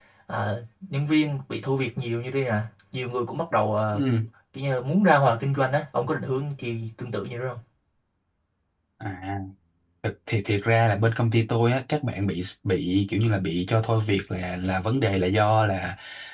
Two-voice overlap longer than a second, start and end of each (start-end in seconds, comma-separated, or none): none